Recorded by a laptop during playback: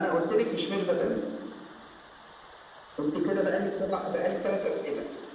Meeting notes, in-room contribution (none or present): none